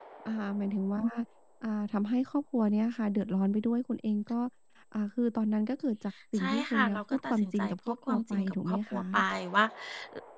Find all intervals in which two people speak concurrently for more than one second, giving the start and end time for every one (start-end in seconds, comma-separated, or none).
6.4-9.2